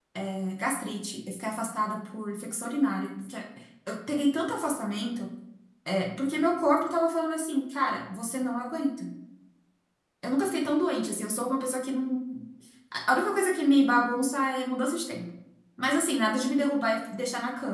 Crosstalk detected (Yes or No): No